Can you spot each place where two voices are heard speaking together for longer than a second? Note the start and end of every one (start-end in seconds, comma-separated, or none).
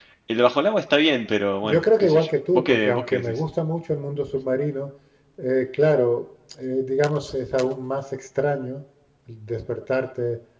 1.6-3.4